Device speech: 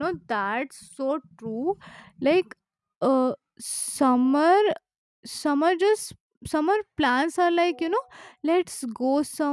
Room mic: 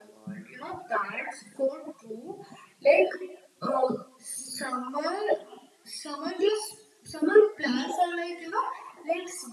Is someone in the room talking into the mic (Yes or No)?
No